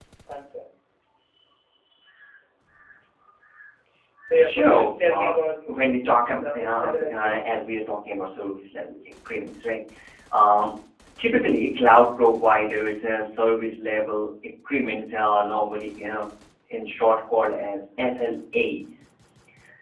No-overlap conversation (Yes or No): No